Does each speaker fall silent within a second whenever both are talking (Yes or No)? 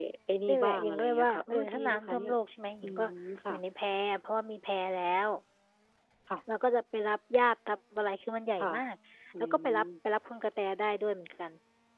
No